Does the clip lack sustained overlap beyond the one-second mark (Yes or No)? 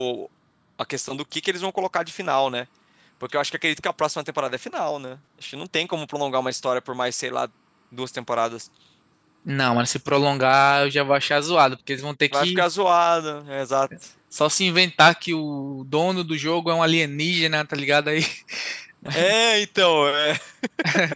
Yes